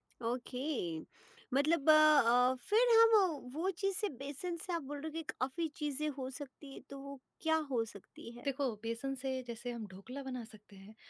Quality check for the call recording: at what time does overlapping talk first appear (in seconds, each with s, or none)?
none